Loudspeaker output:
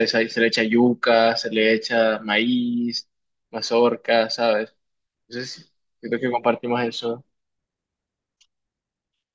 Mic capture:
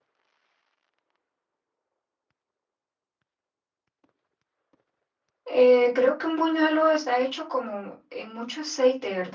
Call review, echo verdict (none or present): none